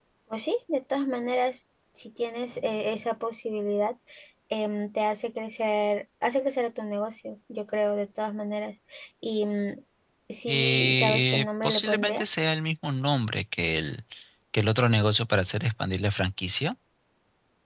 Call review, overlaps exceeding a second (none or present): present